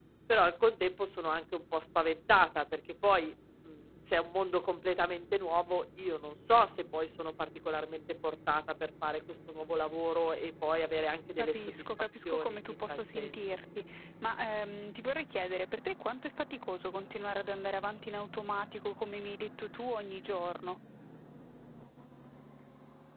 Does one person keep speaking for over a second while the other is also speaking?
Yes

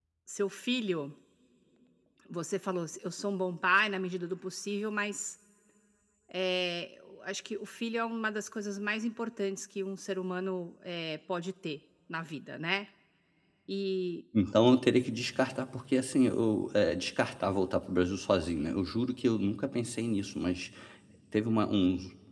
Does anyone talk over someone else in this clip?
No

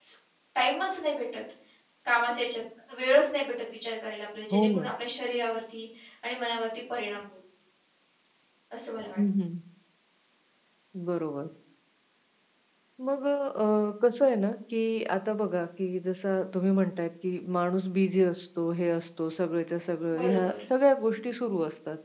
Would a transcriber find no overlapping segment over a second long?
Yes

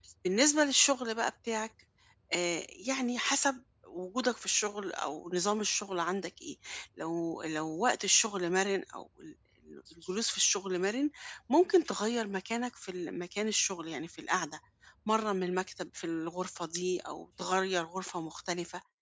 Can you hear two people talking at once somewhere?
No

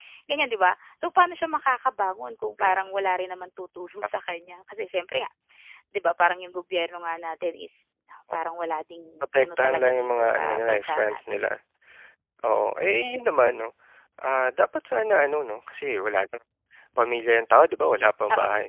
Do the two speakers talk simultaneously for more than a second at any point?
Yes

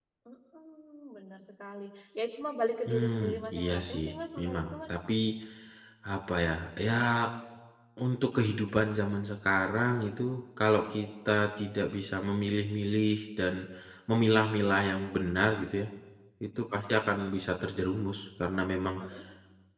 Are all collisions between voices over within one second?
No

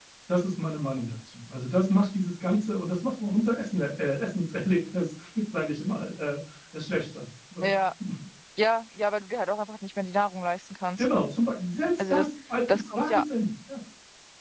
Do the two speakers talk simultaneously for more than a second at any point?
No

